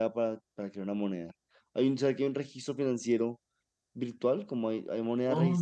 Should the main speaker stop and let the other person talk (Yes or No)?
Yes